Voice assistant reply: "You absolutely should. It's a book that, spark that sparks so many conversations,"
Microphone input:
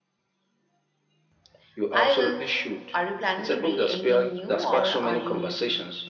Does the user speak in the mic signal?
Yes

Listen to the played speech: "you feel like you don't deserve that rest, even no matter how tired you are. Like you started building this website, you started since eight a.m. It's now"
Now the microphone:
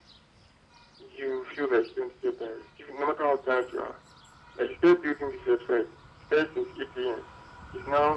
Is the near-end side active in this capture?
No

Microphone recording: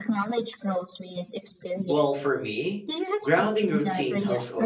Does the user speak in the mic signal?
Yes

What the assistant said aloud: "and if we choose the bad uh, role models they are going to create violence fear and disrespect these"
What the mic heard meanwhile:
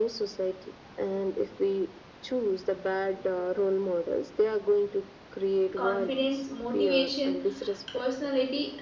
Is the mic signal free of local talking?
No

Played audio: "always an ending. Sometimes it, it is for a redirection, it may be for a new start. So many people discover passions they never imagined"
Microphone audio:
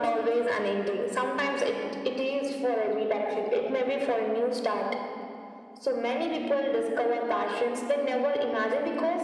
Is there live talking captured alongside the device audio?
No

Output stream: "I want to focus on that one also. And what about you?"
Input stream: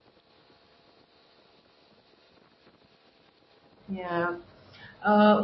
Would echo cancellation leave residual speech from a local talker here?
Yes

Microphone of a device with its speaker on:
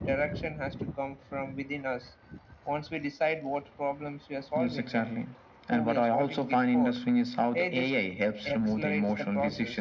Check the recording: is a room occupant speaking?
No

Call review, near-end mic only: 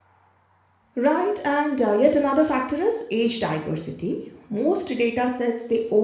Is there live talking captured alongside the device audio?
Yes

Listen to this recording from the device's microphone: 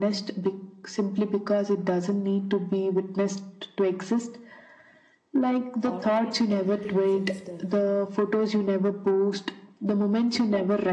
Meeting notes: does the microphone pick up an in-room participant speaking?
Yes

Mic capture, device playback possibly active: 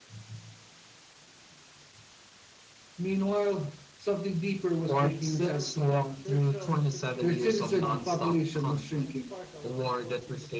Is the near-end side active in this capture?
Yes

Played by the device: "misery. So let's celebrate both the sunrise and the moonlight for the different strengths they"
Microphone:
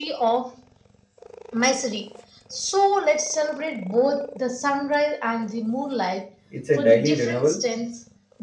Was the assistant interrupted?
Yes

